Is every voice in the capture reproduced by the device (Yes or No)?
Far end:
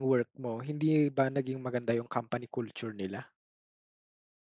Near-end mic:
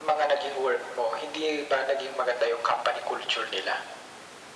Yes